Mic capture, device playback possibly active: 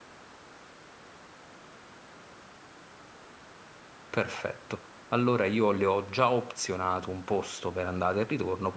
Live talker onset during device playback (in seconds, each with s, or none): 4.1 s